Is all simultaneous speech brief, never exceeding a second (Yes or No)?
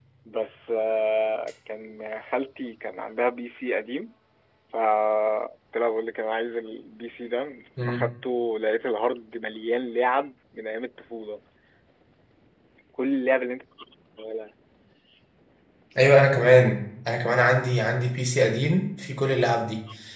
Yes